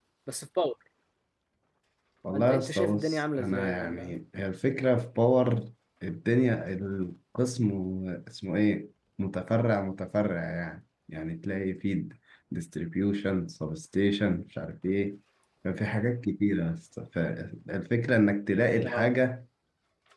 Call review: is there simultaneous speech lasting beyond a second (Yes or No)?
Yes